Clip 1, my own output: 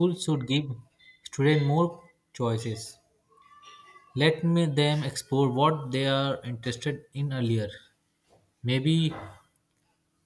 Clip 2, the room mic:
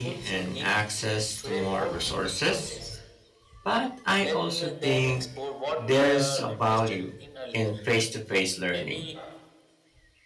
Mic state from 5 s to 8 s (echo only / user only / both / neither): both